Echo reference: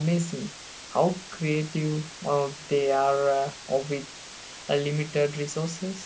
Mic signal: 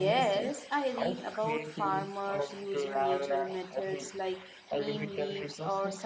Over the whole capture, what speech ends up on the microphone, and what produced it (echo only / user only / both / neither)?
both